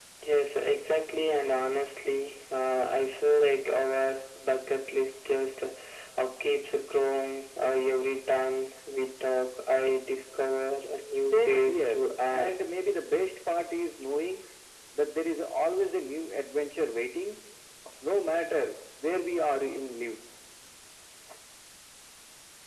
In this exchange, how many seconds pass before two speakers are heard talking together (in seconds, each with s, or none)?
11.2 s